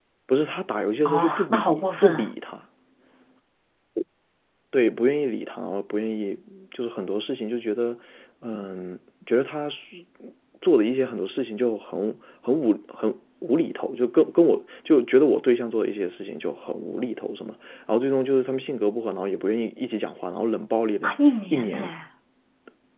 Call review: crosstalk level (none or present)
present